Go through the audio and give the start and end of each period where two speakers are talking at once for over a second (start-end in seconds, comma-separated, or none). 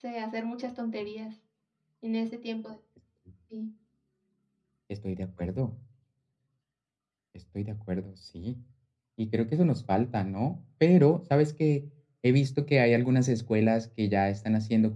none